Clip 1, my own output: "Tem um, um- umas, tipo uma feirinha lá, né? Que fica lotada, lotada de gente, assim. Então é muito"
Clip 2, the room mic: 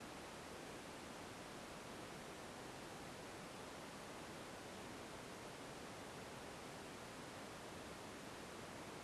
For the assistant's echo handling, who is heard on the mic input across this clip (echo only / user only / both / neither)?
neither